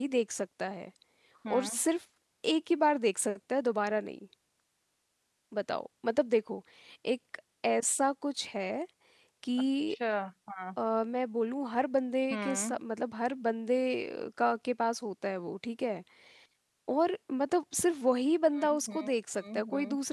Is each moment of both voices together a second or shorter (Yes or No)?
Yes